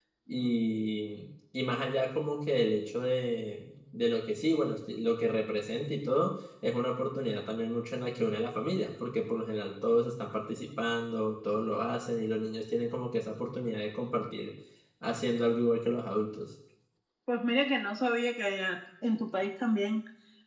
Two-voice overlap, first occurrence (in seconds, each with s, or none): none